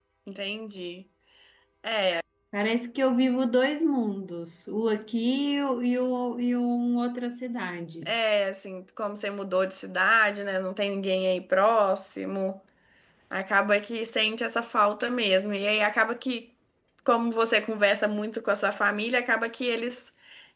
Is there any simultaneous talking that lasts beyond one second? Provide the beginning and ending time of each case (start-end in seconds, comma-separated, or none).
none